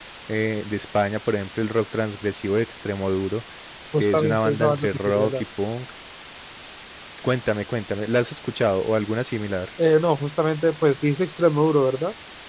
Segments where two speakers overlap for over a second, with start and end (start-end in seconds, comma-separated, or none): 4.0-5.4